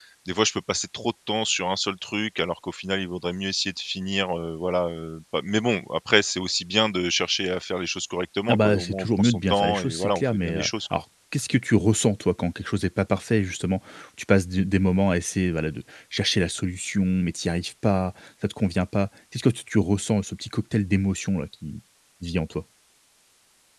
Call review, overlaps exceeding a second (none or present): present